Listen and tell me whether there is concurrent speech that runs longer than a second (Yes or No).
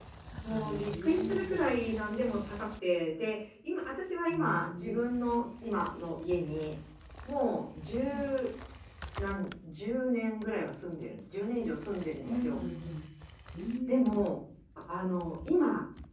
Yes